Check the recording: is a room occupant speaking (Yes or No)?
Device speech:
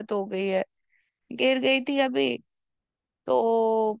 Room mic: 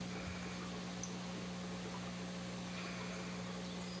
No